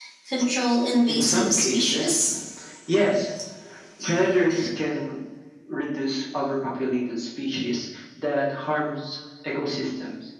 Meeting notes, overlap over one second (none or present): present